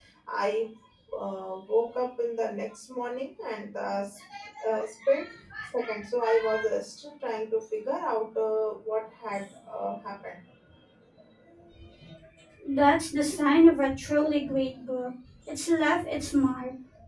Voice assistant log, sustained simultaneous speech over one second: none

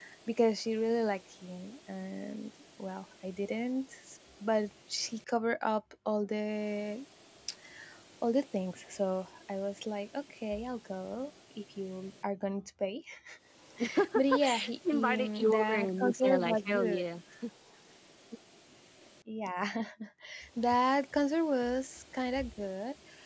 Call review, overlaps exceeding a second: present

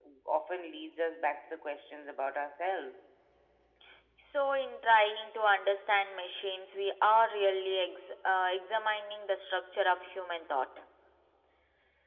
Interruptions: none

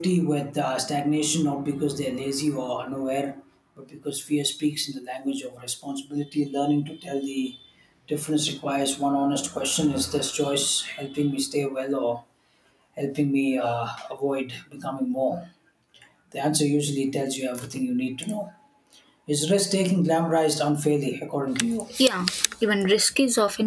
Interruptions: none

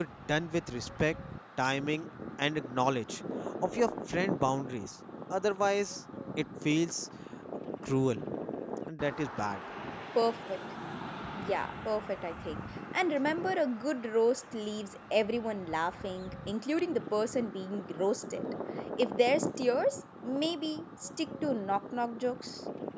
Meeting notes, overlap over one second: none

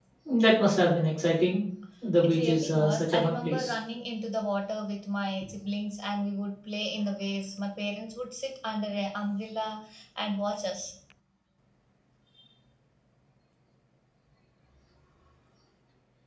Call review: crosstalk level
present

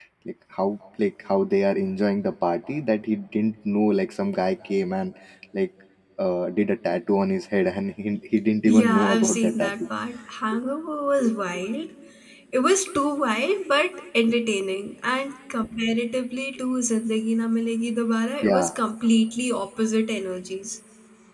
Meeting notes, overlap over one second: present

